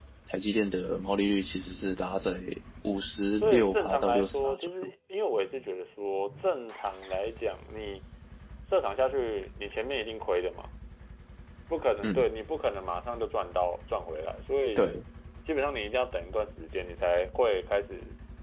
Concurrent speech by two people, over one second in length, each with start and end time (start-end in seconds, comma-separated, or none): 3.4-4.7